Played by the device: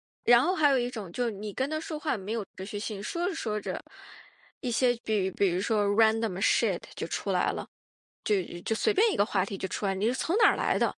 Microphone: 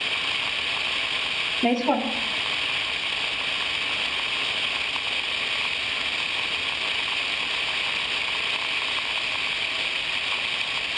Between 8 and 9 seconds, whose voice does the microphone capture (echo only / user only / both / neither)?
neither